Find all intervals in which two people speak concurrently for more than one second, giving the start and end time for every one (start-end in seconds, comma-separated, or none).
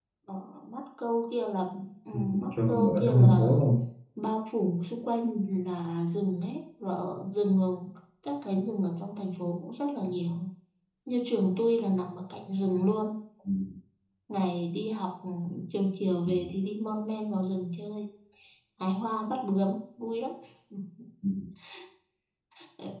2.1-3.5